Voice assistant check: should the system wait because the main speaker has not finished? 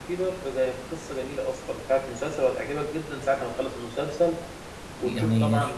No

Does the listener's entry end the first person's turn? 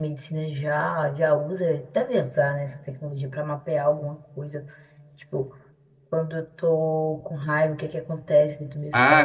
Yes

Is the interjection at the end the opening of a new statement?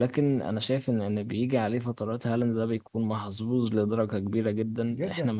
Yes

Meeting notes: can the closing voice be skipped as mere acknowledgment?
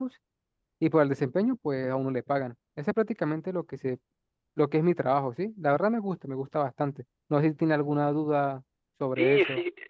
No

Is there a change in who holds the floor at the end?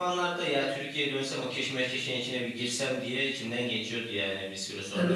Yes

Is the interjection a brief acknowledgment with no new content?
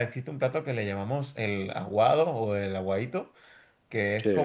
Yes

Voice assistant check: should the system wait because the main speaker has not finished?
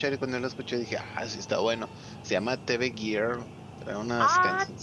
Yes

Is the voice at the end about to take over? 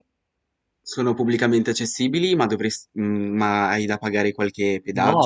Yes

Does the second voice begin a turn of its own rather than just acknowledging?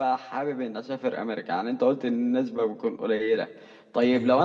No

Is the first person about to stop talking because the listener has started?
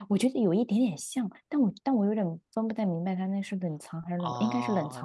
Yes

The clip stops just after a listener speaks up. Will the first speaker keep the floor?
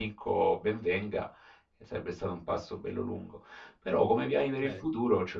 Yes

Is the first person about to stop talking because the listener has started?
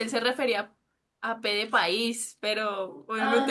No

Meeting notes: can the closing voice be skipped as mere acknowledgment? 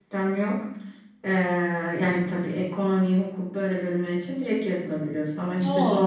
Yes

